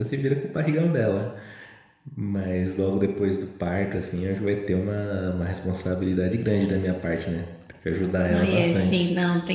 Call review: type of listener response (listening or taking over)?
taking over